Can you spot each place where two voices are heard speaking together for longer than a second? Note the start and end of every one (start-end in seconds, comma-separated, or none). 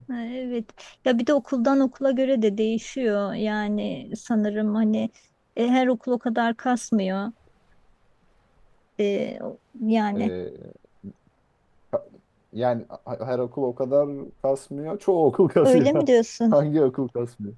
none